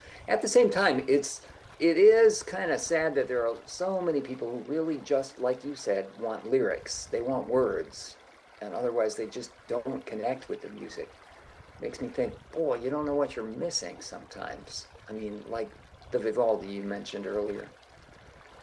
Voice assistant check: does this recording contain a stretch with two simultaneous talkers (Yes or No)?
No